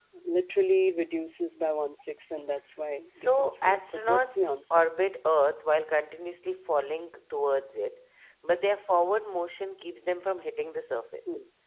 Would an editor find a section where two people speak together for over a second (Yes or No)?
Yes